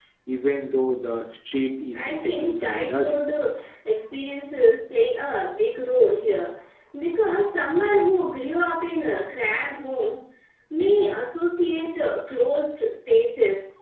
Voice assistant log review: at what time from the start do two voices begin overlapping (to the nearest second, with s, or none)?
2 s